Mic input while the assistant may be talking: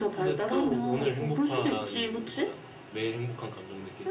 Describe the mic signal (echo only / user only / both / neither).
echo only